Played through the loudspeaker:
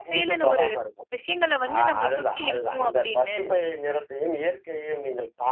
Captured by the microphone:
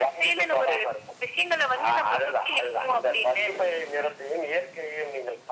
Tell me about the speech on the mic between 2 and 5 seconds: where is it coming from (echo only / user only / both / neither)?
echo only